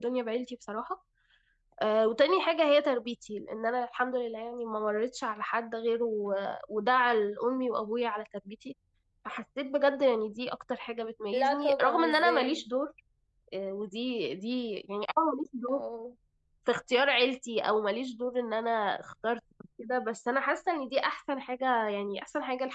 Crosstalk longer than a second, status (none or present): present